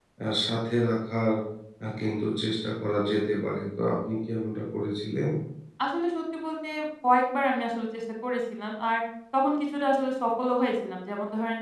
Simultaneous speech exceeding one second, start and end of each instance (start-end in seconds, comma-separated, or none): none